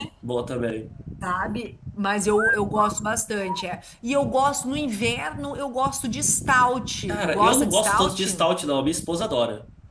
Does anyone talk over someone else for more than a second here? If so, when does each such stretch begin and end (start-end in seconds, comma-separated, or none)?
7.1-8.5